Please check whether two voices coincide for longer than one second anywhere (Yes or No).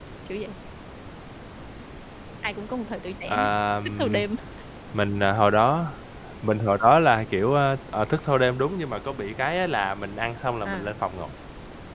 No